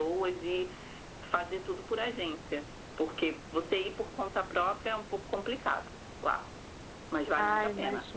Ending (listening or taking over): taking over